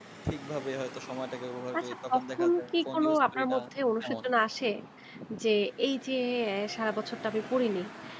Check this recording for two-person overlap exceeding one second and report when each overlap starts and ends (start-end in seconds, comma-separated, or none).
1.8-3.6